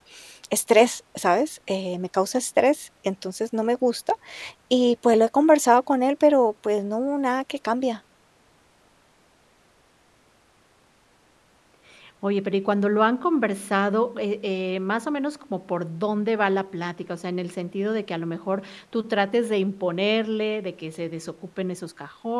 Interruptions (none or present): none